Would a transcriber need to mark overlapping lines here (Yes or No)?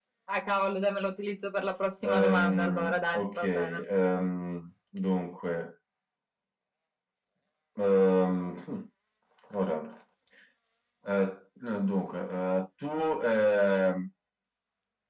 Yes